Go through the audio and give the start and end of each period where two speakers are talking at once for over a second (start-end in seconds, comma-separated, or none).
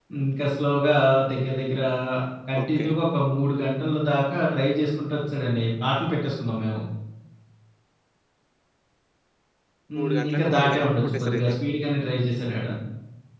10.0-11.5